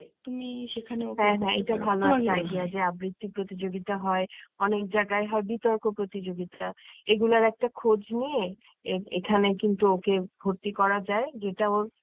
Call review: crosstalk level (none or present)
present